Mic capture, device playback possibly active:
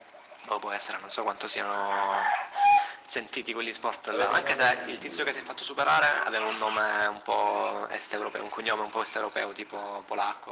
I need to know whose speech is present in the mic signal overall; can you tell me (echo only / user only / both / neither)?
both